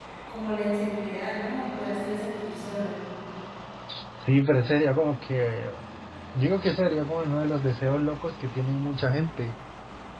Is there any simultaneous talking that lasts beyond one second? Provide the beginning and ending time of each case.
none

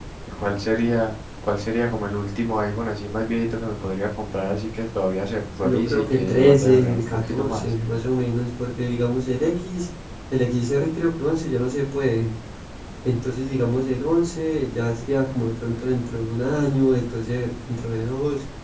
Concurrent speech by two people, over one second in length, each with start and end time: 5.6-7.7

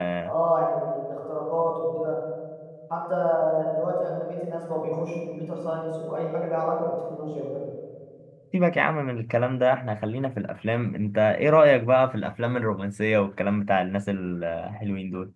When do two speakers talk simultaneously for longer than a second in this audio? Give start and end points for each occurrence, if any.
none

